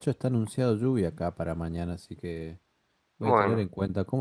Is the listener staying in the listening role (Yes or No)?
Yes